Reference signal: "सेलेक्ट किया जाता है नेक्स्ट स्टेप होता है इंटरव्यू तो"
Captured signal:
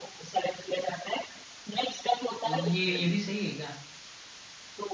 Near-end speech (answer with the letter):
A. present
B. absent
A